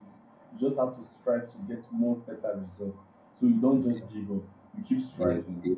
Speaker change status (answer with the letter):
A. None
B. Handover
B